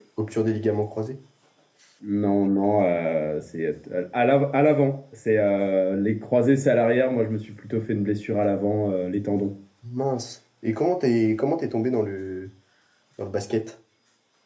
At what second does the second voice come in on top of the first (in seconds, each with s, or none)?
none